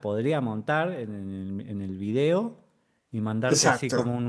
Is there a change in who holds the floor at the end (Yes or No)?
No